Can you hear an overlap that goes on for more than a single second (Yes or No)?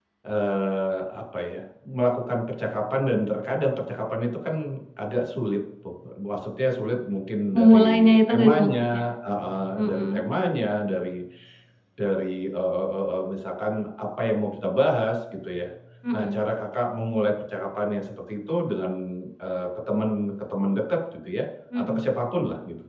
Yes